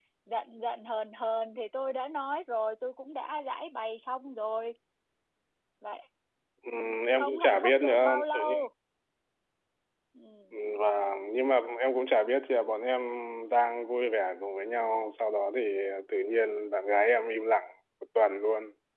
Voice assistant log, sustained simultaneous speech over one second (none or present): present